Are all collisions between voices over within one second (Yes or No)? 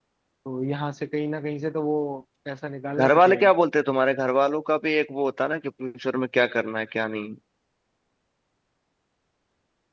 Yes